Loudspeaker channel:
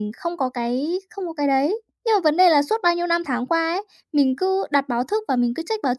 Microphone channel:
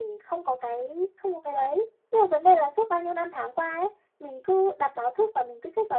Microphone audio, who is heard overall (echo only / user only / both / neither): echo only